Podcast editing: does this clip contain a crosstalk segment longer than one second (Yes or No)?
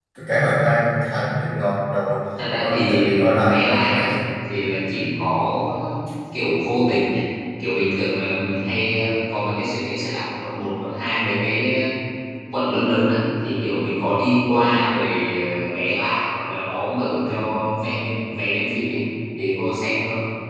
Yes